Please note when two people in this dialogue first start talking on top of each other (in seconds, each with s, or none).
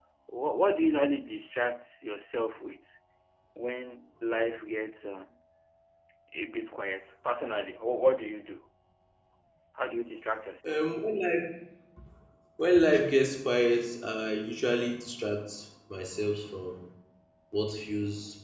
none